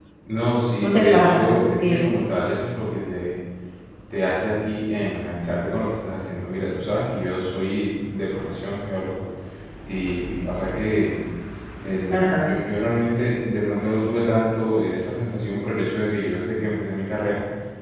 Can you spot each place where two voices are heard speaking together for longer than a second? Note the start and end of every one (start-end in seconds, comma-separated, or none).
0.8-2.0